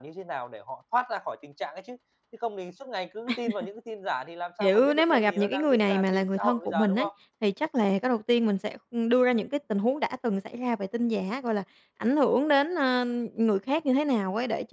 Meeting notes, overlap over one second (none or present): present